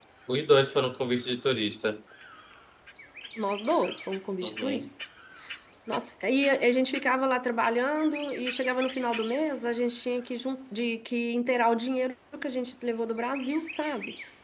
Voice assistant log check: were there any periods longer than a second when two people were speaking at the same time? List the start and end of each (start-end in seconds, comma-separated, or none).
none